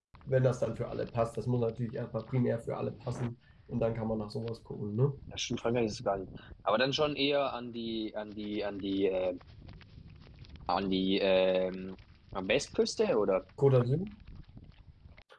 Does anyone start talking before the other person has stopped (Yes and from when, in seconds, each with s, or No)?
No